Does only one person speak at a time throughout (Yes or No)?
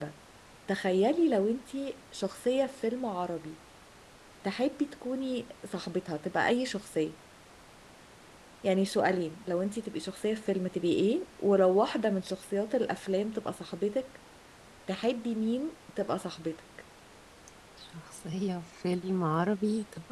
Yes